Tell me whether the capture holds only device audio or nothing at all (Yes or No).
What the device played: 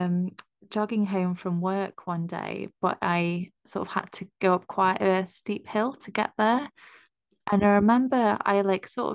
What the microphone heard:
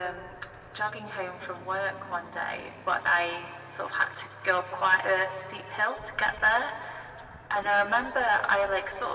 Yes